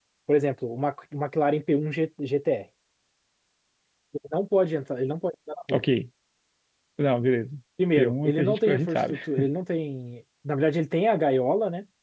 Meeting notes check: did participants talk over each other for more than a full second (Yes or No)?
Yes